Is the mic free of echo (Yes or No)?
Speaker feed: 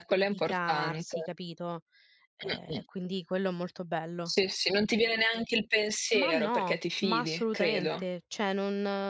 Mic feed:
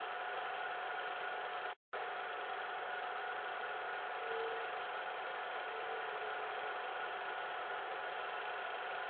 Yes